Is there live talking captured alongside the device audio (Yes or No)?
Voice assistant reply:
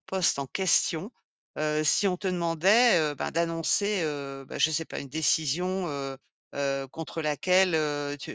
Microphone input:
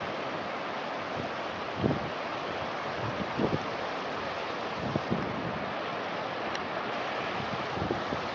No